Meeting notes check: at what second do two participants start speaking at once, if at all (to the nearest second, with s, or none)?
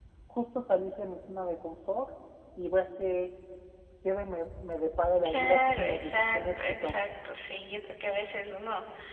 5 s